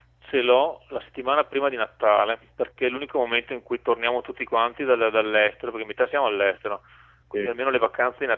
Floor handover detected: No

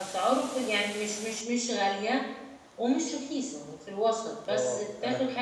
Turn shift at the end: Yes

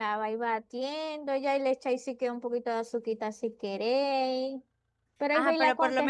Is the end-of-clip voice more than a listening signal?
Yes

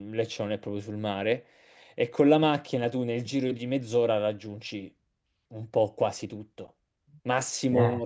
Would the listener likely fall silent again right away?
Yes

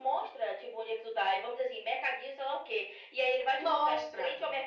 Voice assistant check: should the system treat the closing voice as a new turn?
No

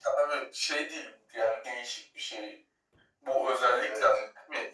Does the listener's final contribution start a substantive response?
No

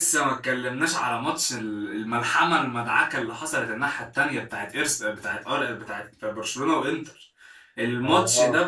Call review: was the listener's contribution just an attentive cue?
Yes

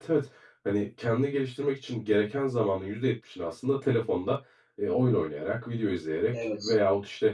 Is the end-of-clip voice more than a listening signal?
No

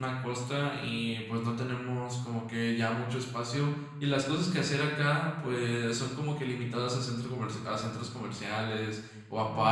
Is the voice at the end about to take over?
Yes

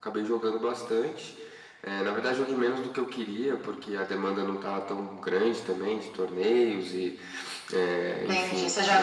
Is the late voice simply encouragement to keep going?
No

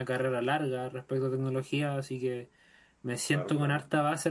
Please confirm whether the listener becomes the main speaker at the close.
No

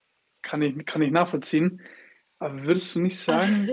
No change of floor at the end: Yes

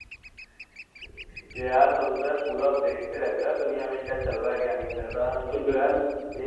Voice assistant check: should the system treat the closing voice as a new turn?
No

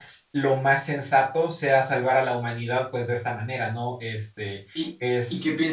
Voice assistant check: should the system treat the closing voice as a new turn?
Yes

